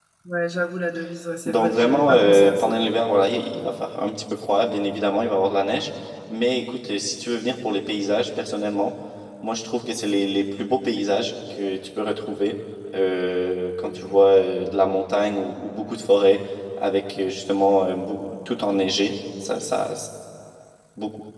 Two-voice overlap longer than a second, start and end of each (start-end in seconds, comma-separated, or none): 1.4-2.7